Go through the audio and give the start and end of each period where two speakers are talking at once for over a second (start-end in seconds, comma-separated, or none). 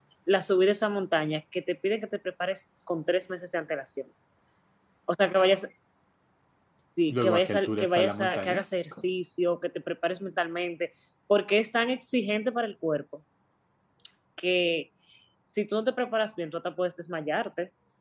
7.1-8.6